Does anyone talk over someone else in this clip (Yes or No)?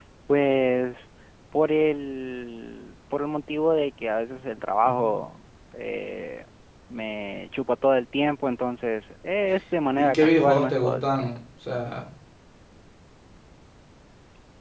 Yes